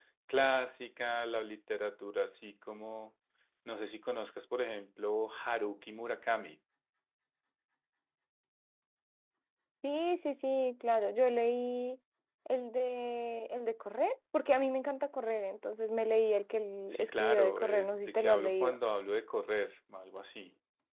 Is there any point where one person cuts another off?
Yes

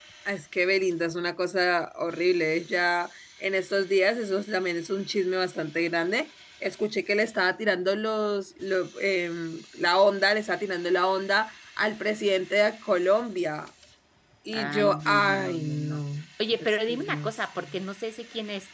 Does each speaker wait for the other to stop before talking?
No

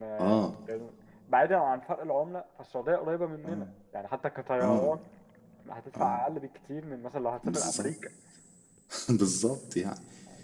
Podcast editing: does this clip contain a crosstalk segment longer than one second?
No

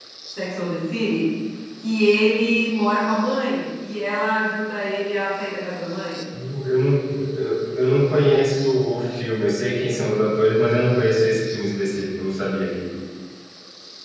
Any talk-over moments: No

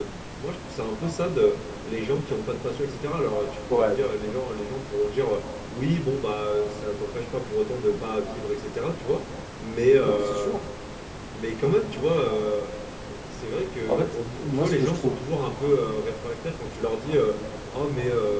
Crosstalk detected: Yes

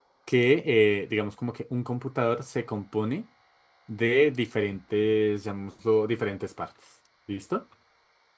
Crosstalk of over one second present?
No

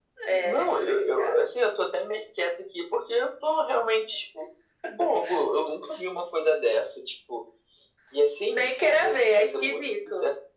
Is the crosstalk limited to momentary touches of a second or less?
No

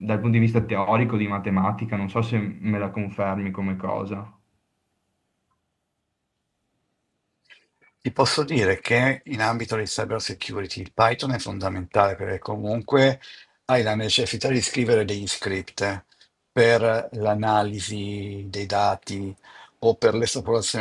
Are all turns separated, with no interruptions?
Yes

